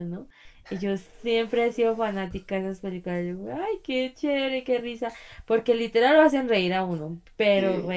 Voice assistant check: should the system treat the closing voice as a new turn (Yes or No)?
No